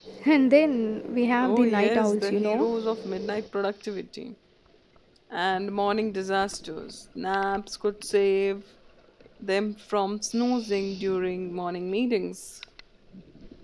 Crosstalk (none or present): present